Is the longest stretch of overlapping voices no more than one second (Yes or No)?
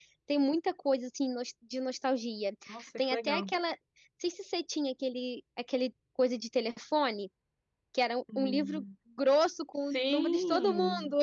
No